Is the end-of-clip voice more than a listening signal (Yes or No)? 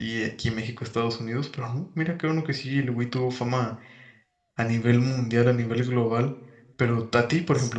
No